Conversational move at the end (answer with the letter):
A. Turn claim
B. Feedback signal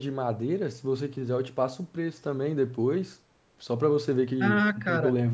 A